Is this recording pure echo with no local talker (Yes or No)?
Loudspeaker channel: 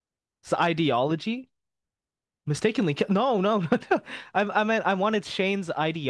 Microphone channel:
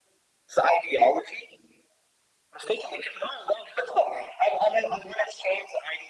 Yes